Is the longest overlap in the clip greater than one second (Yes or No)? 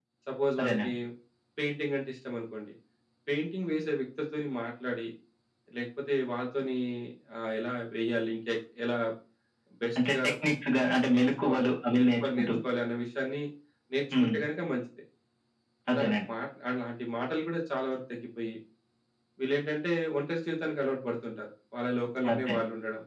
Yes